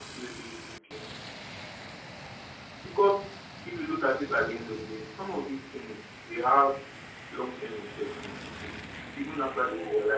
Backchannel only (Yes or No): Yes